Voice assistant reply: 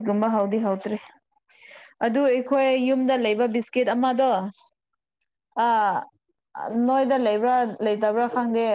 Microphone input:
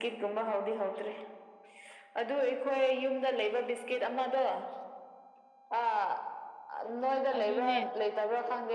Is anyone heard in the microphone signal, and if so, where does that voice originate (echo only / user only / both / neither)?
both